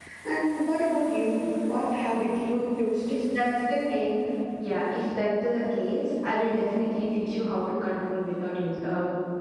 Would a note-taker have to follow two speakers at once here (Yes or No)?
No